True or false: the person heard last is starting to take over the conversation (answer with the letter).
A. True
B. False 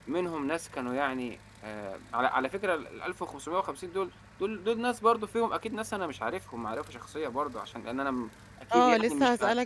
A